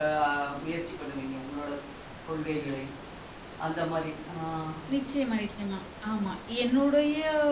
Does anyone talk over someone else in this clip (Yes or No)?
No